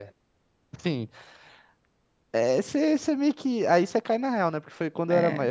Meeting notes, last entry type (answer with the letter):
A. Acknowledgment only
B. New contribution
A